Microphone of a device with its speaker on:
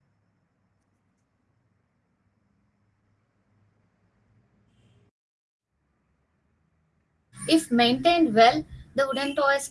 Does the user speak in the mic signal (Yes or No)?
Yes